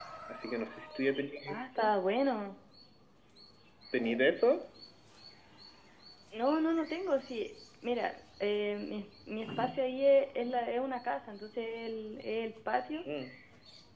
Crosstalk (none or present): none